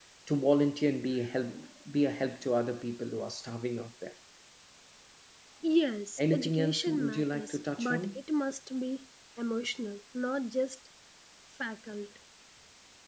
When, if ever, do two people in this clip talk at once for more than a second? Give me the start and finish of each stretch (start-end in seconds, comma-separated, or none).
6.2-8.2